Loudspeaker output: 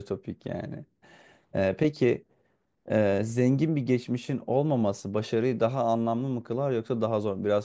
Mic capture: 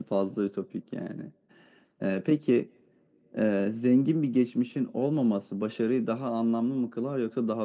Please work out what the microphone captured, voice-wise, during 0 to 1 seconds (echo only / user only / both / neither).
echo only